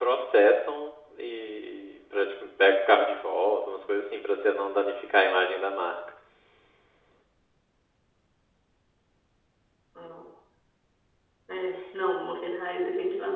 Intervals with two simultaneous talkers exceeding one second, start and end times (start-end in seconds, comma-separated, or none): none